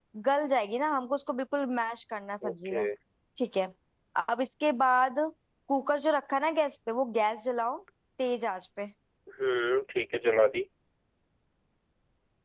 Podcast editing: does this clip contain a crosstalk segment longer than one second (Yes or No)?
No